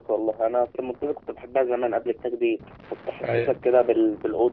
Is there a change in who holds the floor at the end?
No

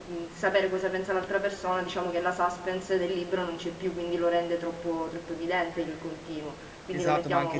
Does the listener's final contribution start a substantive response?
Yes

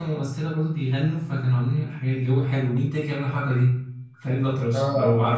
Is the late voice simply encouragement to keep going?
No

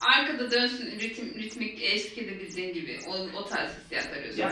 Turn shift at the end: Yes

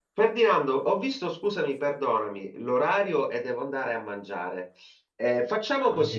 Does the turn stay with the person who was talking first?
Yes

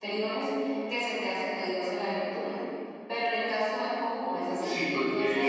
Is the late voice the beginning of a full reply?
Yes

